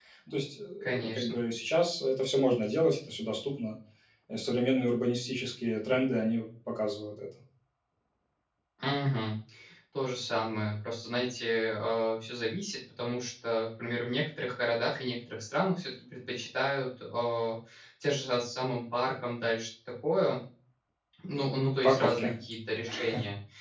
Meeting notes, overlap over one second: none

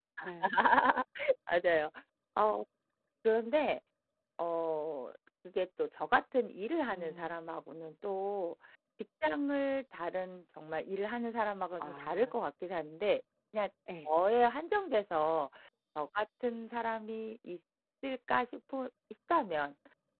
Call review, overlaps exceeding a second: none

